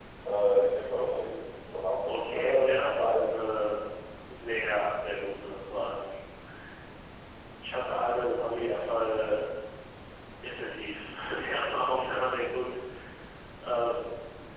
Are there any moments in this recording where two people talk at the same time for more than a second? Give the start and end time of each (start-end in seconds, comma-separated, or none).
2.0-3.4